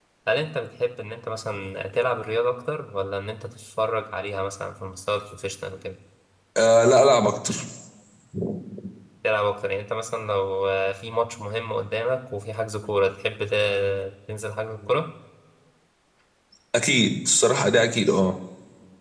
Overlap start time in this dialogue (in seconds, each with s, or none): none